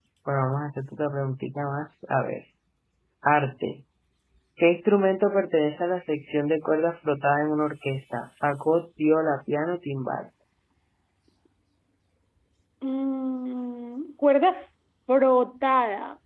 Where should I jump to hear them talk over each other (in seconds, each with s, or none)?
none